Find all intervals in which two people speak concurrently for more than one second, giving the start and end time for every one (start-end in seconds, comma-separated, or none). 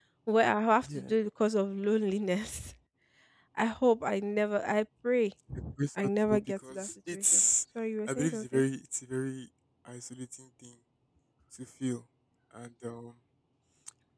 6.0-7.4